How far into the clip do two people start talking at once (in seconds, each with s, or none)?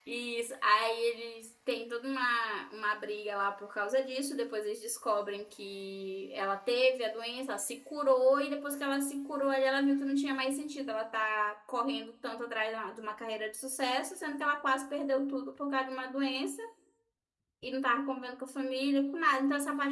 none